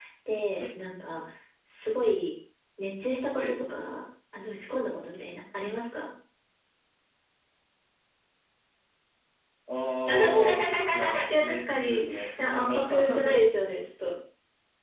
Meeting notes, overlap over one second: present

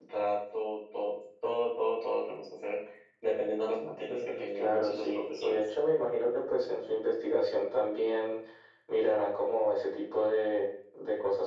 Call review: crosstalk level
present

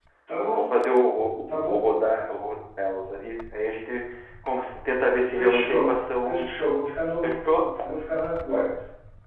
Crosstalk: present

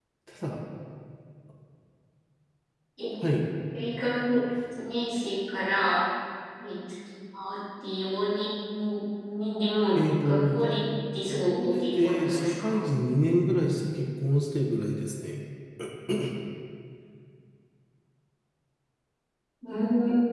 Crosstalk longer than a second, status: present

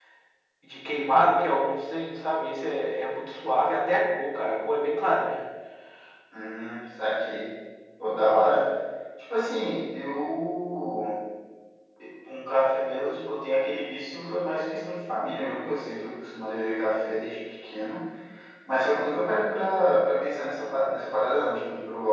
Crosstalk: none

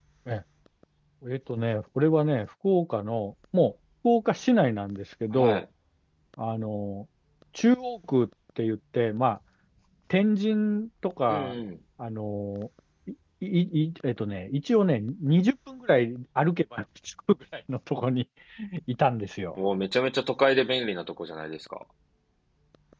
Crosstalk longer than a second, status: none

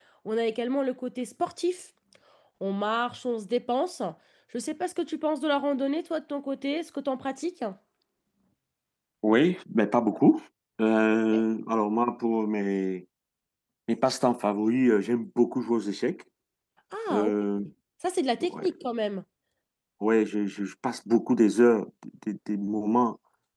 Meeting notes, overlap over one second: none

